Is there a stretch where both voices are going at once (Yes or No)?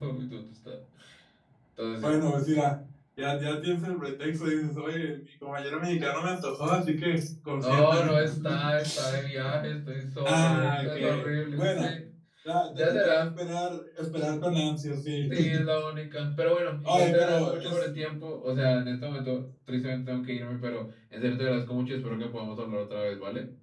Yes